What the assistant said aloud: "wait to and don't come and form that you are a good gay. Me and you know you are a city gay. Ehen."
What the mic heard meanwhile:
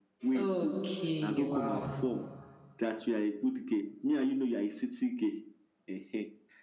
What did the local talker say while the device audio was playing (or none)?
Okay, wow.